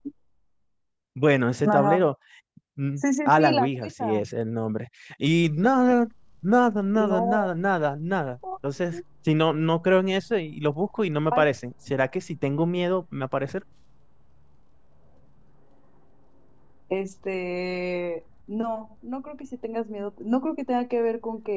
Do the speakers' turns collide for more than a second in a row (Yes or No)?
Yes